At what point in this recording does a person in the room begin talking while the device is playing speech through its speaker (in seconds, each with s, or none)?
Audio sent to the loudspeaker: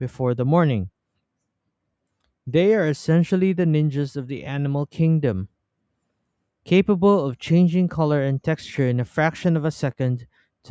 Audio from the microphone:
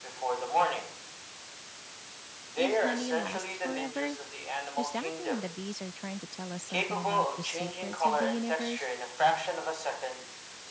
2.5 s